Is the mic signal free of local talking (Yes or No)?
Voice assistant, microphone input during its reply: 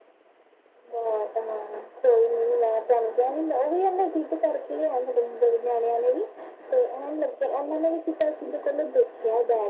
Yes